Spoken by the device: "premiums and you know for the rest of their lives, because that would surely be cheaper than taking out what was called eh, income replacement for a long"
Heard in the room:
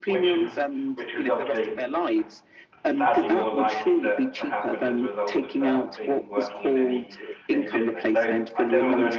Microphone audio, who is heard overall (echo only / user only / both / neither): both